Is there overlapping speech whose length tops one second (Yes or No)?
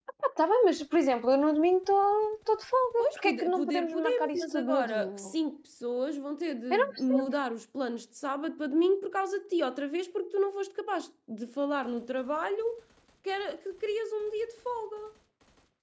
Yes